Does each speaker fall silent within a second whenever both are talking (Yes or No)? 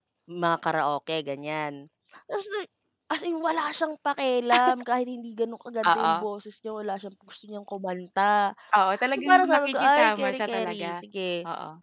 No